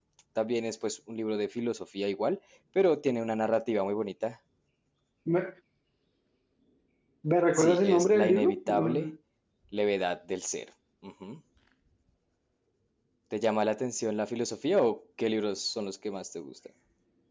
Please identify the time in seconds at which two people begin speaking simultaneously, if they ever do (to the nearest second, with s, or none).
8 s